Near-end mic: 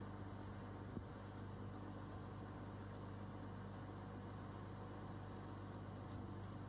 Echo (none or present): none